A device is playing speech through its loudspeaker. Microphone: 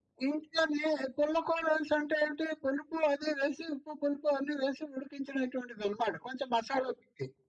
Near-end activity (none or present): none